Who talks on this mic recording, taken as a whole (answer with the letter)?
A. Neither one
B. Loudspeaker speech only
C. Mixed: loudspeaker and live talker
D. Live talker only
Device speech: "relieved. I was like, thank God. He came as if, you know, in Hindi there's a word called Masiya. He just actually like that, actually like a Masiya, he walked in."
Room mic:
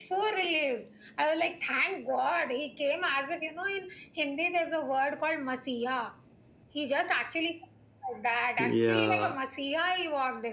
C